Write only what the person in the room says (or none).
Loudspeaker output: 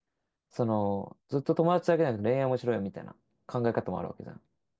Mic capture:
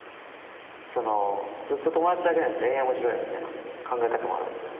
none